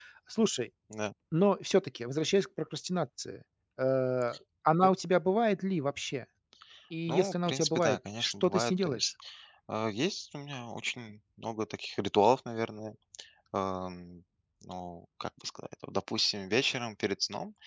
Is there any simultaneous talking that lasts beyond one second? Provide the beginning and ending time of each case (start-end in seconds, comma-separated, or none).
7.1-9.1